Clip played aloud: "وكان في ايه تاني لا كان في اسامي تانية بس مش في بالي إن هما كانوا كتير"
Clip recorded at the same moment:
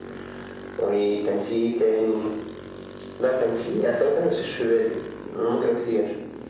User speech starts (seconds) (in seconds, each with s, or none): none